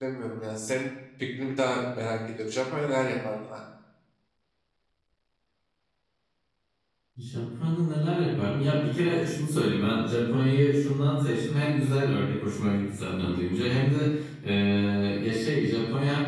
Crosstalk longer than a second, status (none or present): none